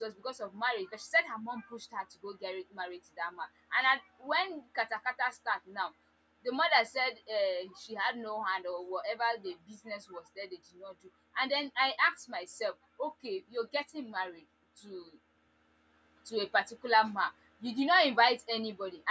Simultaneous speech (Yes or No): No